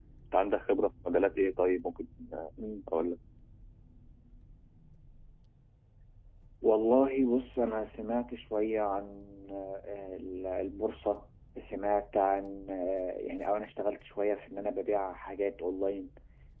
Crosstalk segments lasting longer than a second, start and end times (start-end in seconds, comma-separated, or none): none